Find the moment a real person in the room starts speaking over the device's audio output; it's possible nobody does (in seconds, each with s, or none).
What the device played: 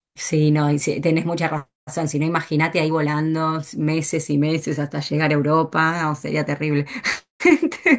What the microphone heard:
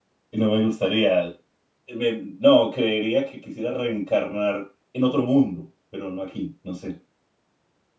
0.3 s